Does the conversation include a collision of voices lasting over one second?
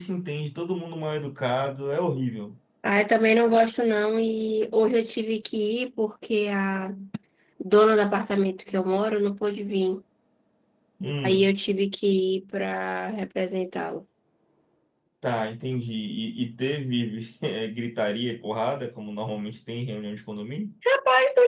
No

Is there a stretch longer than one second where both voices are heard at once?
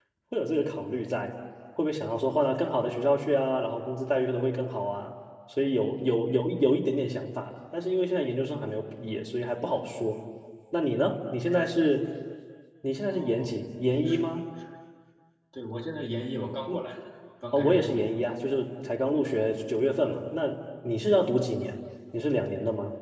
No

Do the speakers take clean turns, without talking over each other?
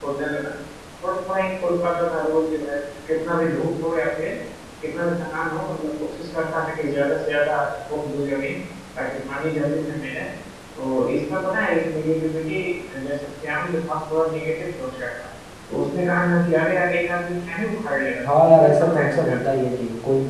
No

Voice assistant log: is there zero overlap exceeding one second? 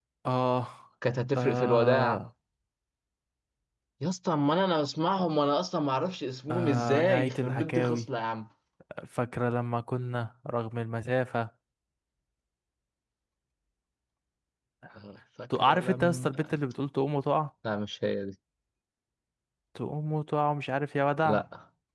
No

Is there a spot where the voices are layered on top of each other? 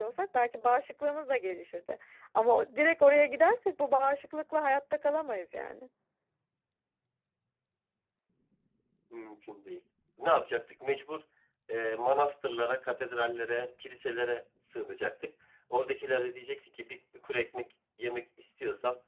No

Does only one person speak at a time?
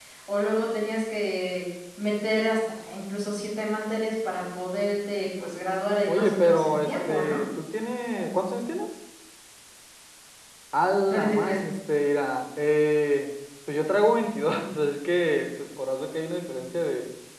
No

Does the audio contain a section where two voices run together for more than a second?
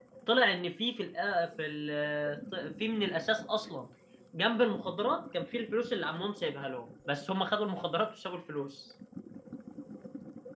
No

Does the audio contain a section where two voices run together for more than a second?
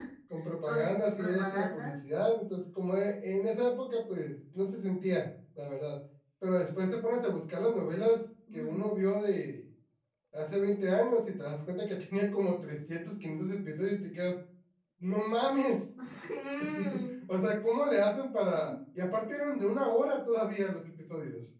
Yes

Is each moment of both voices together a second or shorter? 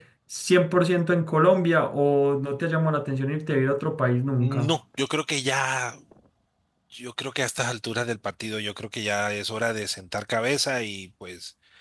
Yes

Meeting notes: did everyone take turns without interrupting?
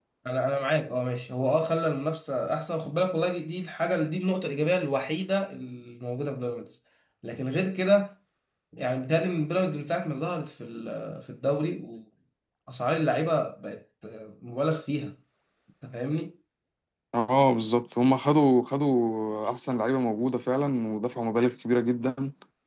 Yes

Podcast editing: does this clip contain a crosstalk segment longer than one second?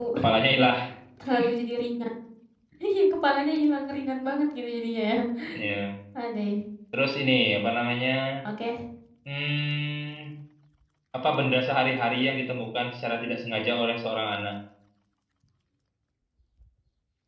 No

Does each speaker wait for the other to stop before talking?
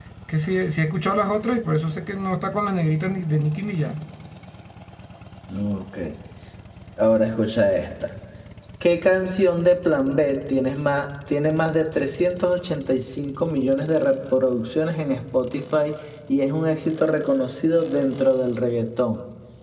Yes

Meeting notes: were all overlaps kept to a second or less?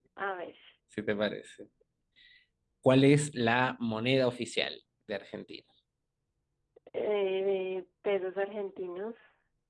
Yes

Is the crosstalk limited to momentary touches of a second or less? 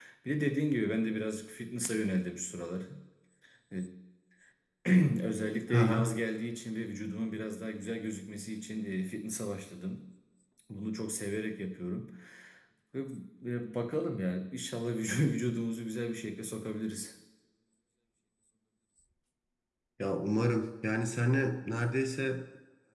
Yes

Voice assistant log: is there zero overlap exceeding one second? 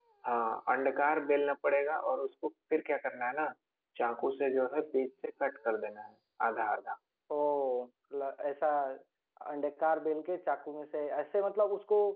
Yes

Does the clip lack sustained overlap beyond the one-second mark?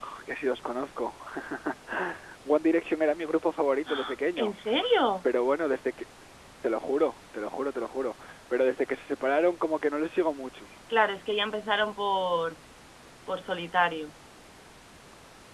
Yes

